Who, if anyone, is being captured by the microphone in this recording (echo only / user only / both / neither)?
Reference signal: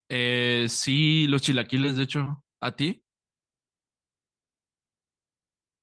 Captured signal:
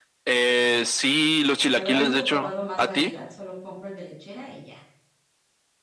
both